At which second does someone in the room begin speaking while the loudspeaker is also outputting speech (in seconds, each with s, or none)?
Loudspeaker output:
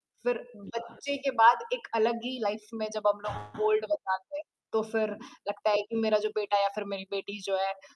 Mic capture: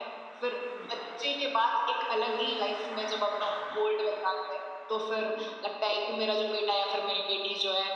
none